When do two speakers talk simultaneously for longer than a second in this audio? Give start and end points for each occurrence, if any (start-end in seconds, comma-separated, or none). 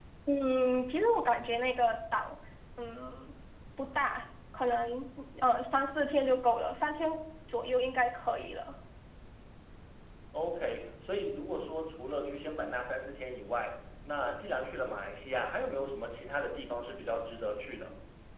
none